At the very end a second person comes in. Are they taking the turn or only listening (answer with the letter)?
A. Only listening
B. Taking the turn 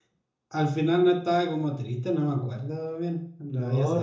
B